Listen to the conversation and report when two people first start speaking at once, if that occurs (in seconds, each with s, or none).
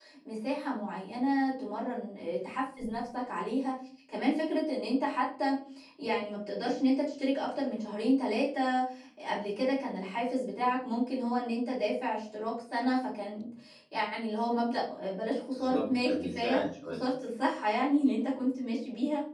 15.5 s